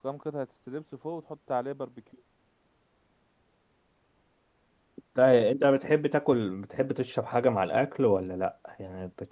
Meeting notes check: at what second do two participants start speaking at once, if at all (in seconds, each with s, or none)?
none